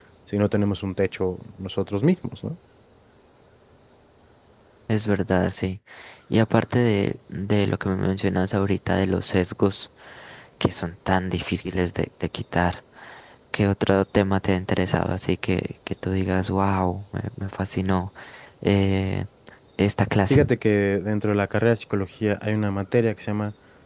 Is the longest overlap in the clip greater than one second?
No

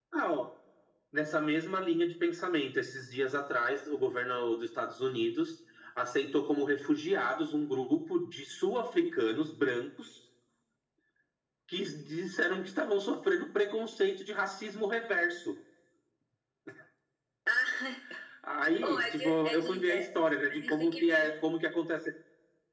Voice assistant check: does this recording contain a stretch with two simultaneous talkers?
Yes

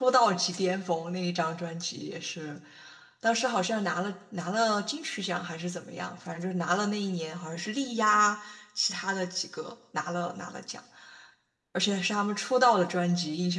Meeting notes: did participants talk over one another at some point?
No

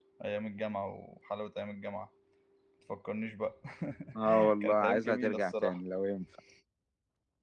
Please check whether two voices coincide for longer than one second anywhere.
Yes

